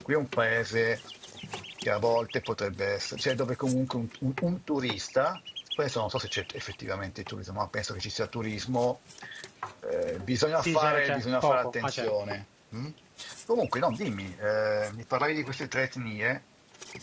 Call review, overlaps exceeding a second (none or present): present